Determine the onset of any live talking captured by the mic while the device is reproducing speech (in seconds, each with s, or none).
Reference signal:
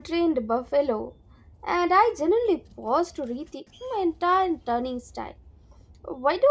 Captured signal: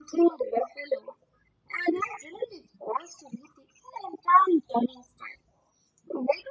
none